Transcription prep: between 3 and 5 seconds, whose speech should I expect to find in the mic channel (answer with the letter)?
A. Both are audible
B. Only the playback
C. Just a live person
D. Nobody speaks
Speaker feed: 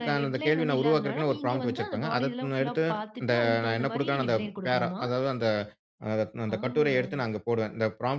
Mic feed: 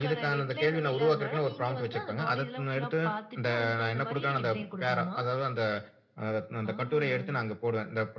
B